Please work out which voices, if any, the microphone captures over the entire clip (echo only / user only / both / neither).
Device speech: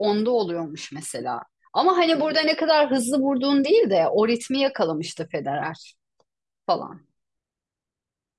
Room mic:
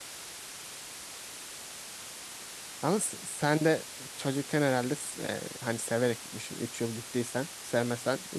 user only